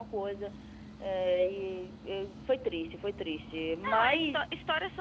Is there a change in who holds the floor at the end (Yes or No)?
Yes